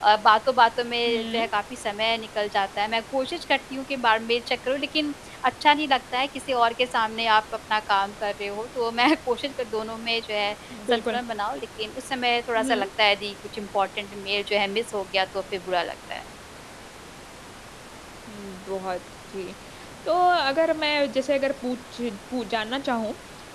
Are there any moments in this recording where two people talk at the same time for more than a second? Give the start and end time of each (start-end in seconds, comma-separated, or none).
none